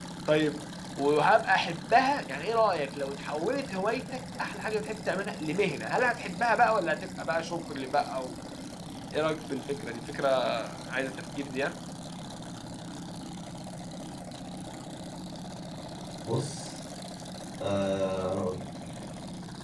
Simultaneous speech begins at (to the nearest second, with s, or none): none